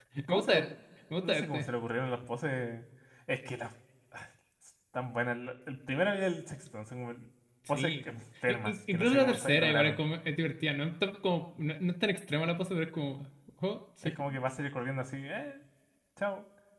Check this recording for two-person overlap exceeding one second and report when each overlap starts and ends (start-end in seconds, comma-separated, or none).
8.5-10.0